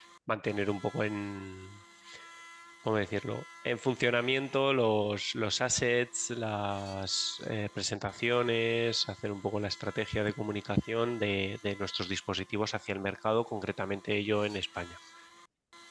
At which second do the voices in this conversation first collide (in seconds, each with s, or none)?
none